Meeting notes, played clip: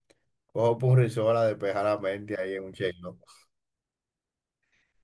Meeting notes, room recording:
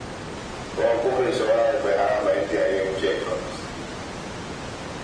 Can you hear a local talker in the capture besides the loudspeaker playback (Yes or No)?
No